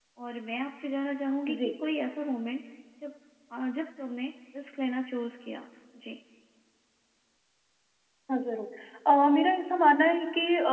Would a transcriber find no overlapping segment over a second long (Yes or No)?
Yes